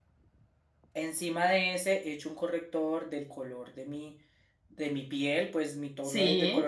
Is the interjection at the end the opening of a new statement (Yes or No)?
No